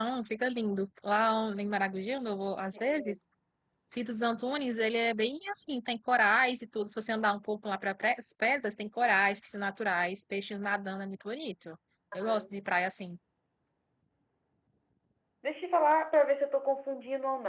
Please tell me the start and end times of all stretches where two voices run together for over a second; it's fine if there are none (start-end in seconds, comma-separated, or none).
none